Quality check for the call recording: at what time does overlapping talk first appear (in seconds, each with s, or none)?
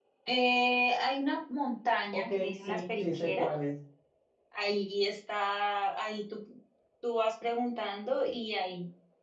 2.1 s